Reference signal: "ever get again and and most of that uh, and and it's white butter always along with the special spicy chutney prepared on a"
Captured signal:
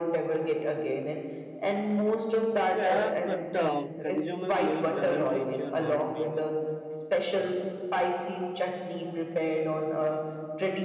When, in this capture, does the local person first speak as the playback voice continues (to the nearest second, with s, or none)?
3 s